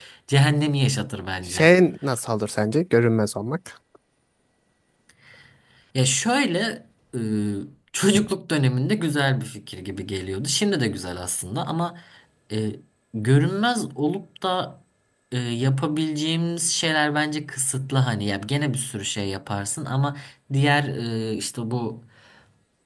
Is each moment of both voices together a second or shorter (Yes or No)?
Yes